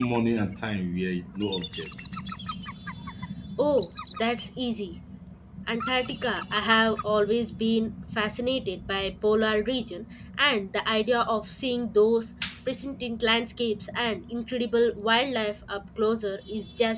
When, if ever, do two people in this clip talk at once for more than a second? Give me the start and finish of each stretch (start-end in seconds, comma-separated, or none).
none